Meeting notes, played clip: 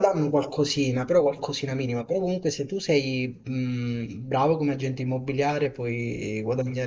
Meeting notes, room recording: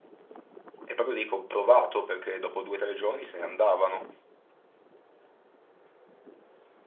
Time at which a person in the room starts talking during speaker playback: 0.8 s

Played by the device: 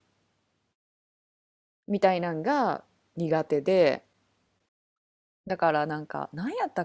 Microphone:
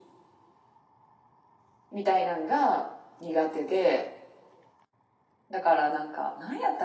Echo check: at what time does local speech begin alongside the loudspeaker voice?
none

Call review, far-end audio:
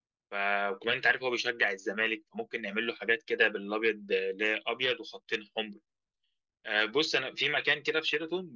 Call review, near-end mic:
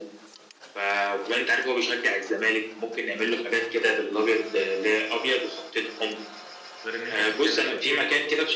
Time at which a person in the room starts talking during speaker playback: 6.8 s

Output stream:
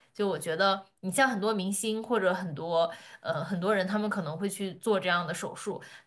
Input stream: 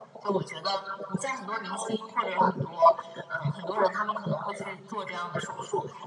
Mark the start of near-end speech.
none

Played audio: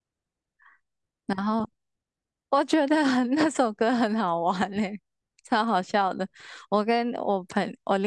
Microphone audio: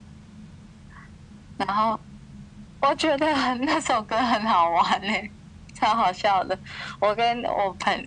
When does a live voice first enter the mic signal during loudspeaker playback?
none

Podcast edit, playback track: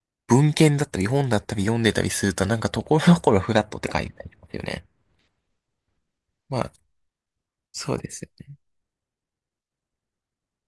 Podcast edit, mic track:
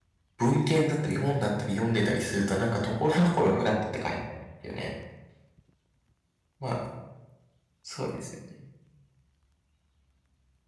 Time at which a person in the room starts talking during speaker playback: none

